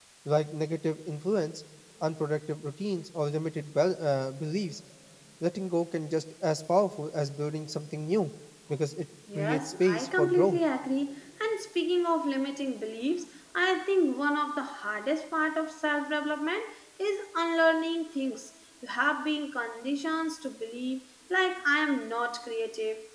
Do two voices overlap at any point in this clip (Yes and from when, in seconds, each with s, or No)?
Yes, from 9.3 s